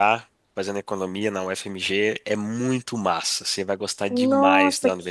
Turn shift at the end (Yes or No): Yes